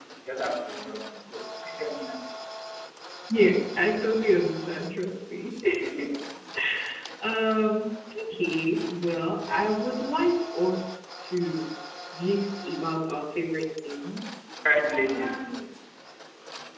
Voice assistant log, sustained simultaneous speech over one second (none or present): none